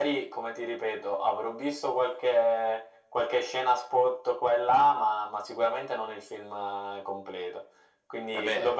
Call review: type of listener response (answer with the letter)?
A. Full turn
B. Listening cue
B